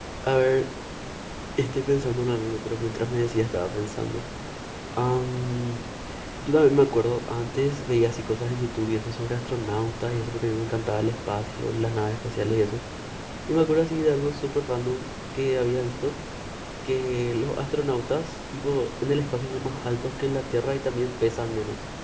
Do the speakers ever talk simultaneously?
No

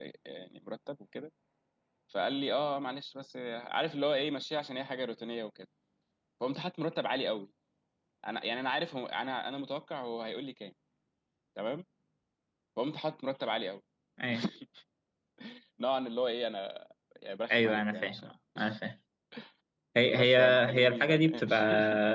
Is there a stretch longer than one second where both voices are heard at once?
Yes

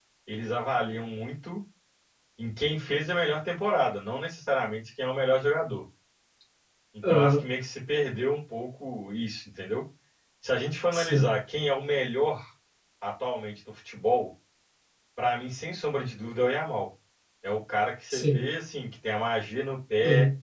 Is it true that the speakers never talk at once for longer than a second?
Yes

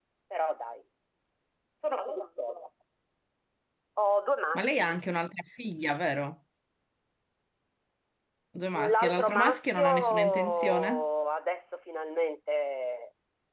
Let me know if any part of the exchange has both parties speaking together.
Yes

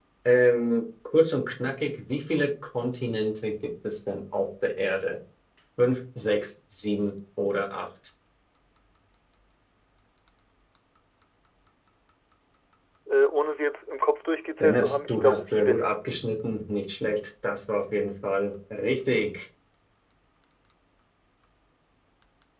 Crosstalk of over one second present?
Yes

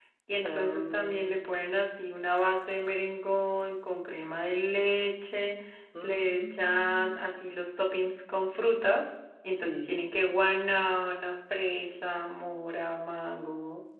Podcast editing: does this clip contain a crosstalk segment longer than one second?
Yes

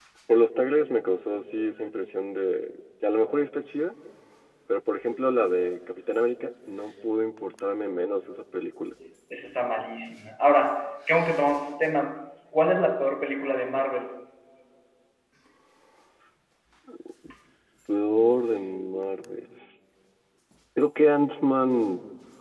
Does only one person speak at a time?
Yes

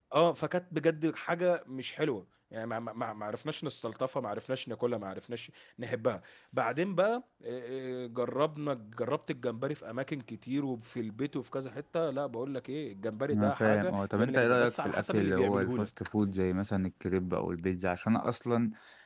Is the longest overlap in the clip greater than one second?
Yes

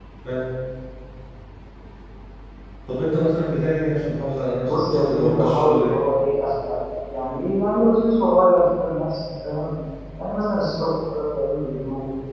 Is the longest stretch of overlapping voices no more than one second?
No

